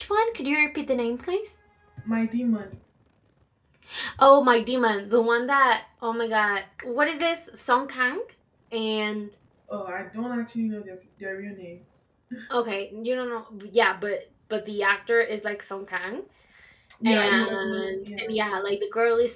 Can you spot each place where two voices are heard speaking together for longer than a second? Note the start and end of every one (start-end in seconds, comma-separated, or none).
17.1-18.4